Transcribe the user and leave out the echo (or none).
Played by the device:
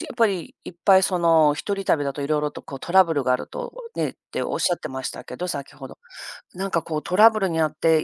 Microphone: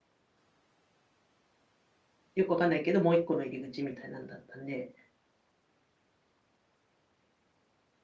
よくわかんないけど、もう1個の入り口みたいなんだったんで